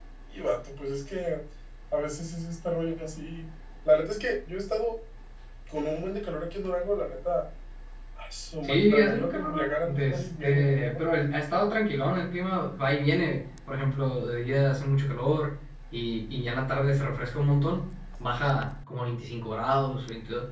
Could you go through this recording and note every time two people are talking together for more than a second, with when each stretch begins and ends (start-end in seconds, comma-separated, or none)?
8.6-11.0